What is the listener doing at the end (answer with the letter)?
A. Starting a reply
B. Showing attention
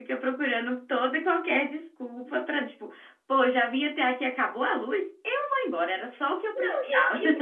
A